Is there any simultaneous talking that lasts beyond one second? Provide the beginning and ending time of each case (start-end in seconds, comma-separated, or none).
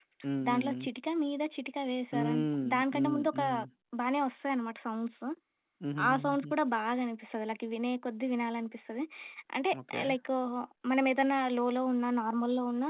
2.1-3.4